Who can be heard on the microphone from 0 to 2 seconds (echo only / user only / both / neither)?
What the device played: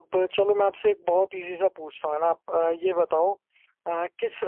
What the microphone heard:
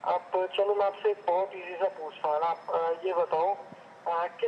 echo only